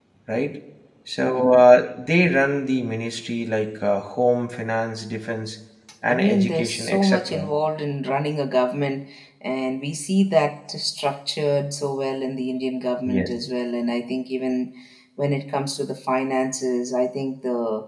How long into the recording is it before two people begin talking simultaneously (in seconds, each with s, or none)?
6.1 s